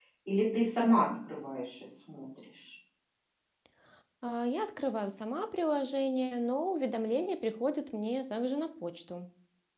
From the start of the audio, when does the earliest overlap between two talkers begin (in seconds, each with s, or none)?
none